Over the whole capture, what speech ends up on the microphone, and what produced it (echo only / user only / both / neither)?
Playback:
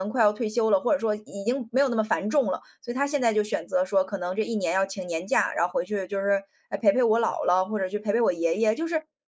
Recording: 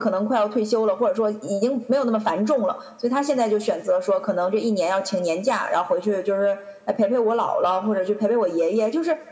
echo only